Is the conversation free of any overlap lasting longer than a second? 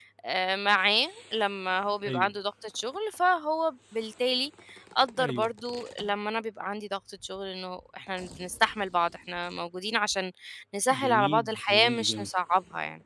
No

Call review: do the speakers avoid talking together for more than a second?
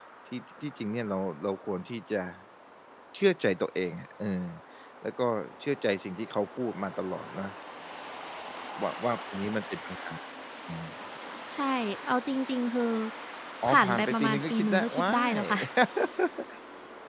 No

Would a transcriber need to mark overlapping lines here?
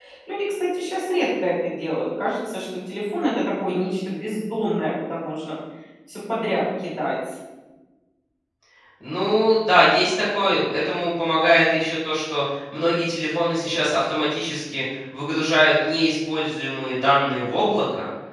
No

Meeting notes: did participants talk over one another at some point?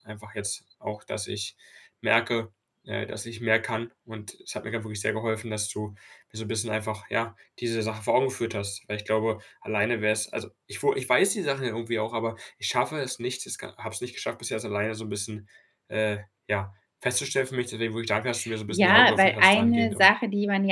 Yes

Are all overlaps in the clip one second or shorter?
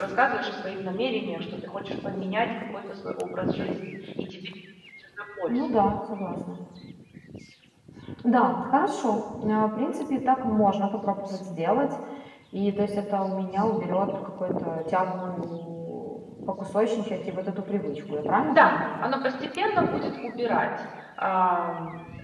Yes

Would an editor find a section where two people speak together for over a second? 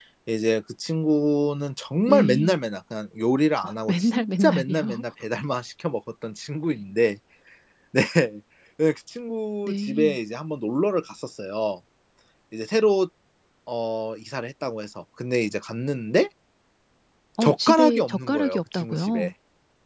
Yes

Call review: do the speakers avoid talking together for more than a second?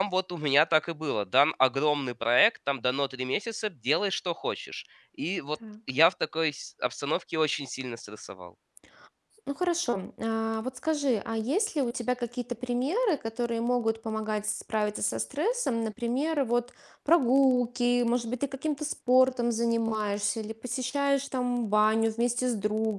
Yes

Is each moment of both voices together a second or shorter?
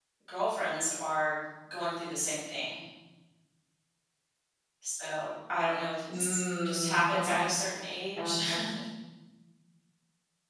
No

